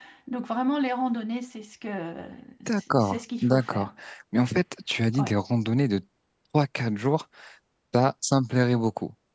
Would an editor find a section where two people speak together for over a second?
Yes, from 2.7 s

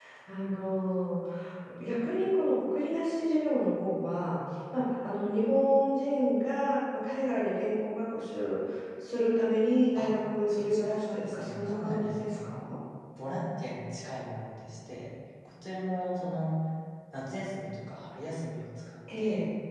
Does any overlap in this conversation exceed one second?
Yes, from 10.5 s

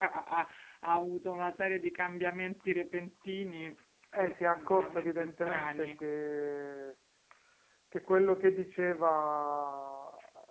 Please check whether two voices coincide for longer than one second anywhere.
Yes, from 4.1 s

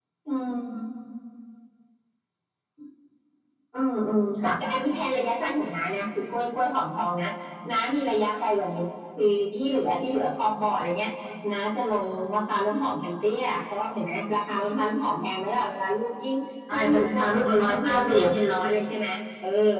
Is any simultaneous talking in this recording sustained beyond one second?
Yes, from 16.7 s

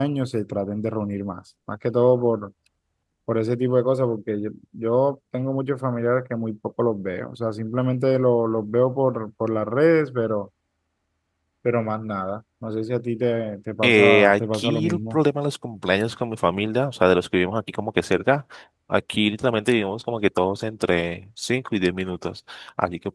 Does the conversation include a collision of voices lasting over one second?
Yes, from 13.8 s

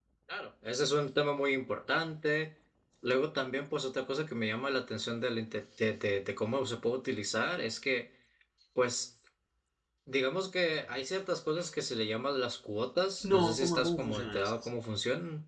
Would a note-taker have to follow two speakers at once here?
Yes, from 13.2 s

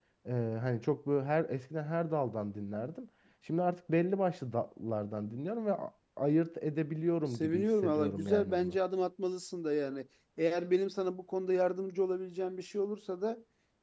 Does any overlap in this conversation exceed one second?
Yes, from 7.3 s

